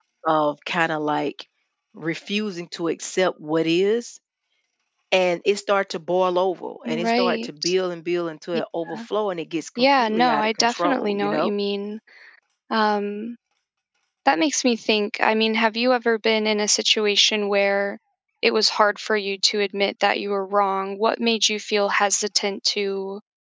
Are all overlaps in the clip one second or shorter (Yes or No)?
No